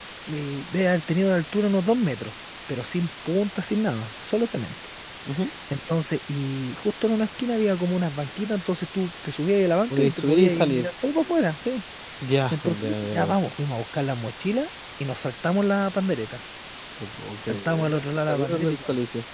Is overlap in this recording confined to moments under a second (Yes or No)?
No